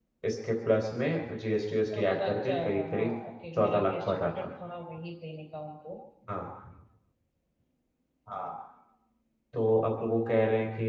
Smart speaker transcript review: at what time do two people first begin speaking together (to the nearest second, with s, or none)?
2 s